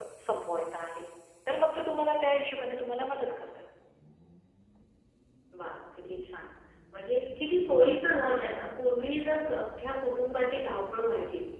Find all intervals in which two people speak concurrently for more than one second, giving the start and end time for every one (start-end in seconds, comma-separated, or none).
none